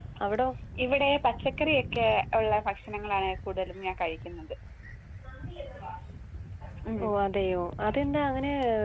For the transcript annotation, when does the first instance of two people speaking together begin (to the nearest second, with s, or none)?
none